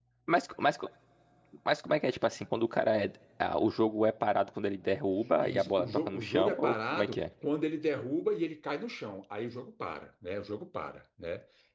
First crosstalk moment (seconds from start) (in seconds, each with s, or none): 5.4 s